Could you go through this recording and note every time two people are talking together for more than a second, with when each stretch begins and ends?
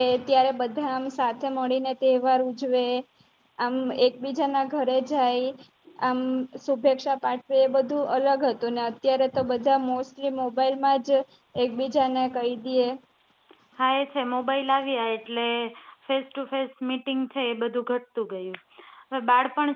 none

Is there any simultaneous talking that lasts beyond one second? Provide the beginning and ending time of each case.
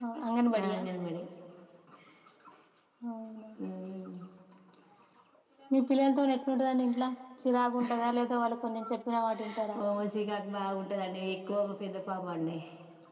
none

